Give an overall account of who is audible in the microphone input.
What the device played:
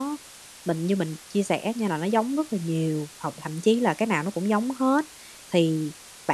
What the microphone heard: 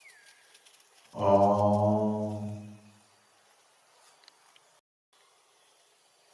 user only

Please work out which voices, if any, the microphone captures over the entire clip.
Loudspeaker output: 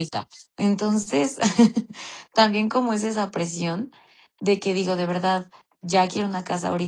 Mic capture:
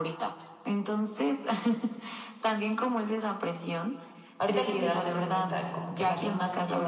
both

